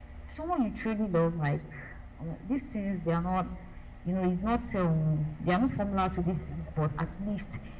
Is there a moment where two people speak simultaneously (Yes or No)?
No